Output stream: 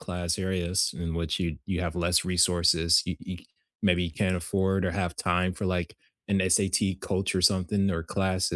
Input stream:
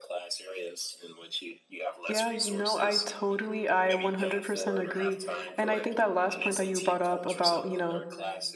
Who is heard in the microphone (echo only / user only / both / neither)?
both